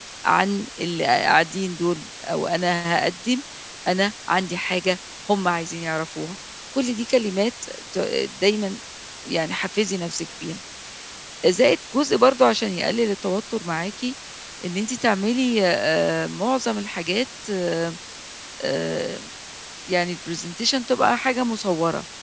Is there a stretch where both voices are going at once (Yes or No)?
No